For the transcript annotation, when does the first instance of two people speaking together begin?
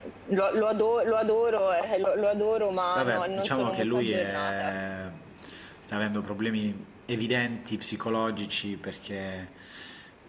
3.0 s

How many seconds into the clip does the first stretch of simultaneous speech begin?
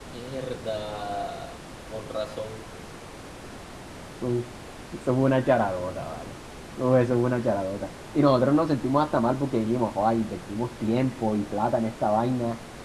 none

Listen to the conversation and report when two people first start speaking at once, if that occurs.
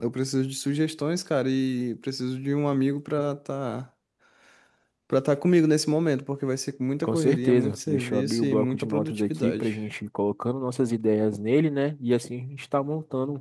7.0 s

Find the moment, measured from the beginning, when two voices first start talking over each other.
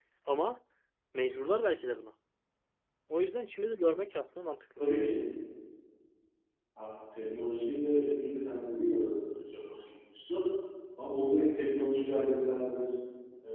none

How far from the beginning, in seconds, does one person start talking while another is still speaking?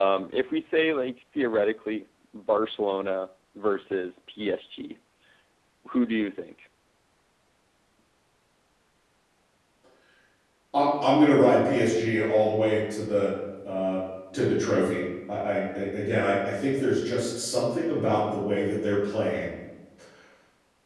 none

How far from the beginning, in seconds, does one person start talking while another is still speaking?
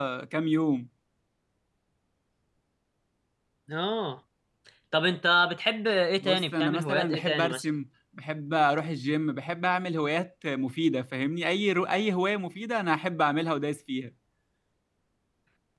6.2 s

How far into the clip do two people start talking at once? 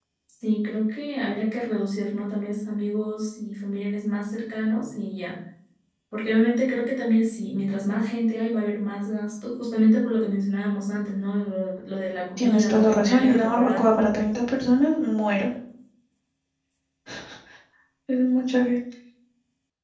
12.4 s

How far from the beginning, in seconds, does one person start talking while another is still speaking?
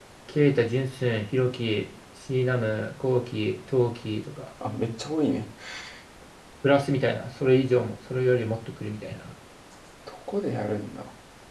none

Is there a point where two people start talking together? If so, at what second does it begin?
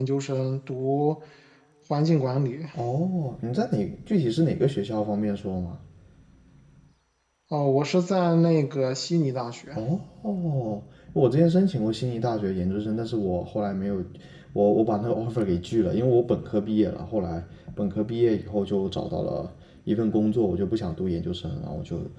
none

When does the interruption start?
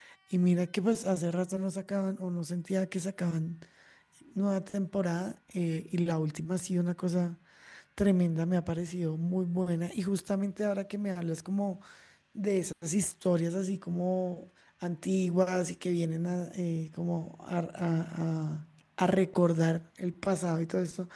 none

